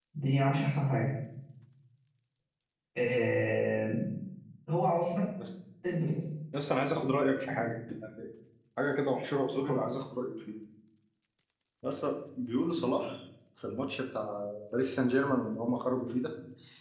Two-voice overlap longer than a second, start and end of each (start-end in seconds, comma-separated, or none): none